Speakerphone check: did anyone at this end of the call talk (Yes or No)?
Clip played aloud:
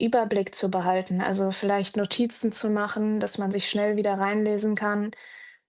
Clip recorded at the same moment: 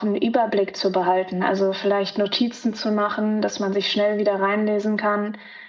No